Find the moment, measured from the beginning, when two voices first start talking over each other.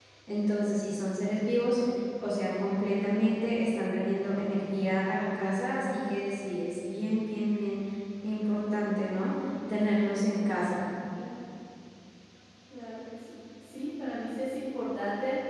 none

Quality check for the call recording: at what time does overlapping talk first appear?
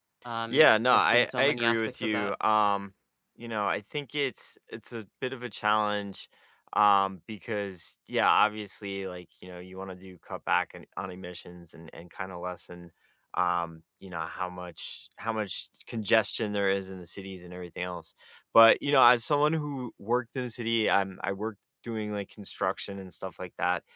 1 s

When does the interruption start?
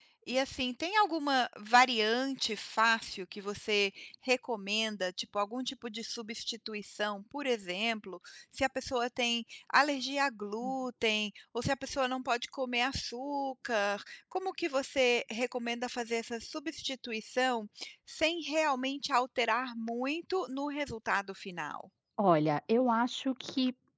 none

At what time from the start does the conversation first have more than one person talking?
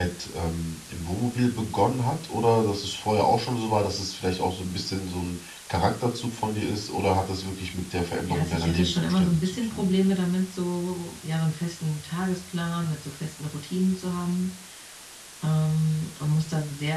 8 s

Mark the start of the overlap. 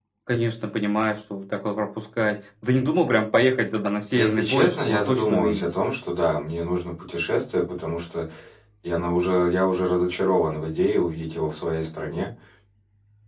4 s

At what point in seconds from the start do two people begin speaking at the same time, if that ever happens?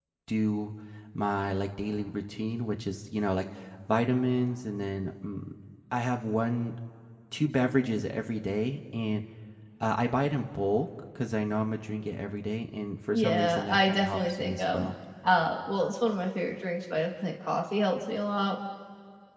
13 s

